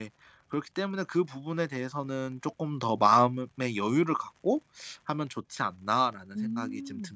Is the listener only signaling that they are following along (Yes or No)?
No